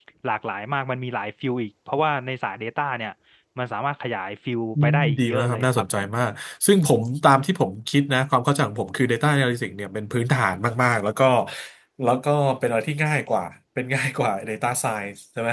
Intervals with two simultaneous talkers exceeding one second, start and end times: 4.8-6.1

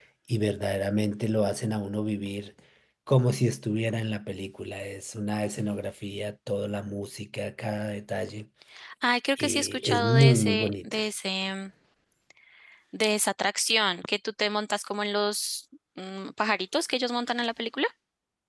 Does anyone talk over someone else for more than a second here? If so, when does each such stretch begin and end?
9.4-11.0

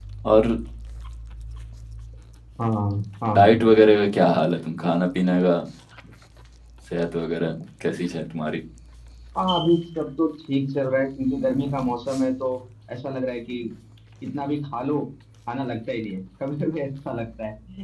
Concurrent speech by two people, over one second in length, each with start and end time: none

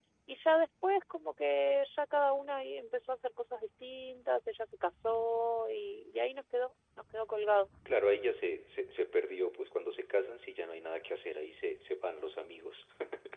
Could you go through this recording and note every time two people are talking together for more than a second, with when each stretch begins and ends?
none

